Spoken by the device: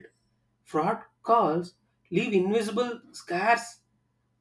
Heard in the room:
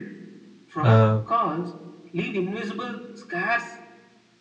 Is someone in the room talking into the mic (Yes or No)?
Yes